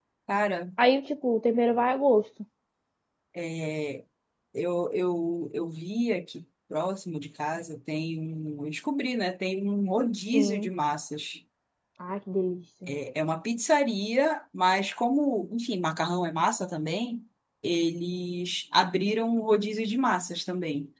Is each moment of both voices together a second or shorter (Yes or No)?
Yes